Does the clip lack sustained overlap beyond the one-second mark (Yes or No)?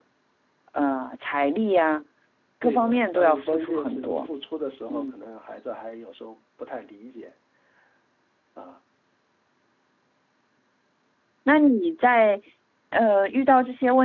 No